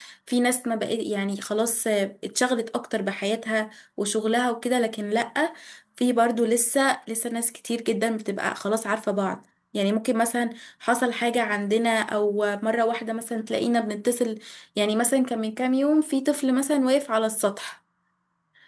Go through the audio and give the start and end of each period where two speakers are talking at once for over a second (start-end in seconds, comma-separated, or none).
none